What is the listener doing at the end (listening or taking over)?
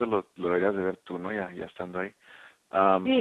taking over